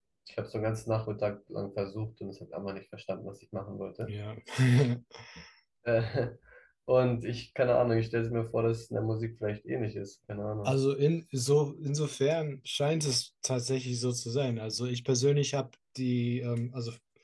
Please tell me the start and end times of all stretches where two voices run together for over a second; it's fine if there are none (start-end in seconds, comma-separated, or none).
none